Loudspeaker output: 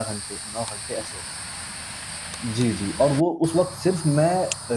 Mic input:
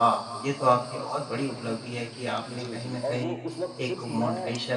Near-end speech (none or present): present